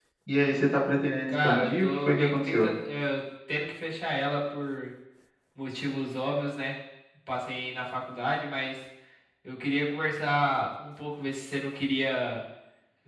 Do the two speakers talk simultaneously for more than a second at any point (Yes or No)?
Yes